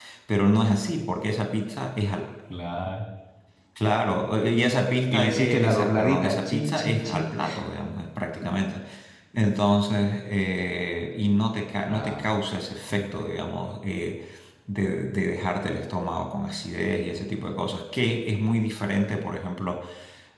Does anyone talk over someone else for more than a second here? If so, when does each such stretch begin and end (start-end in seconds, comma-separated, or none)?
5.1-7.3